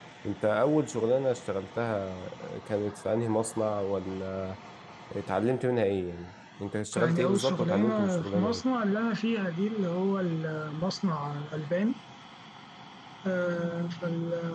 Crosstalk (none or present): present